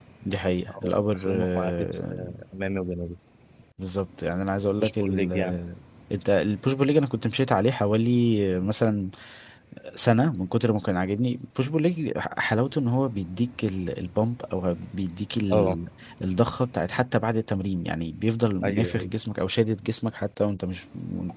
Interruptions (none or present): present